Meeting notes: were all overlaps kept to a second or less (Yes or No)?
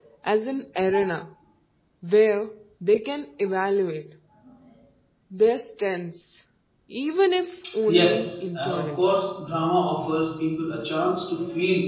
No